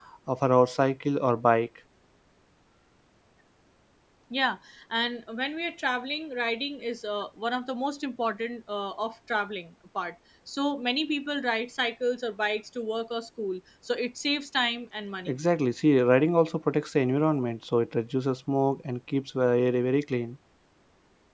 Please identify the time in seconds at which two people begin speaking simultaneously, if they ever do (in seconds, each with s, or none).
none